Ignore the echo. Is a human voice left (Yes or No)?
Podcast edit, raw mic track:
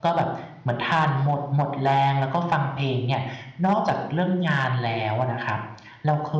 Yes